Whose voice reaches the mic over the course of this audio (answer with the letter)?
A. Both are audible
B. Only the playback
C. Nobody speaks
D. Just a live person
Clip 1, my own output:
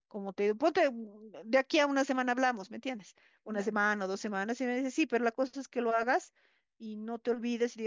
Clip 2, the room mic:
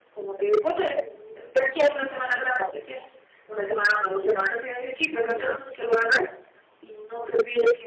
A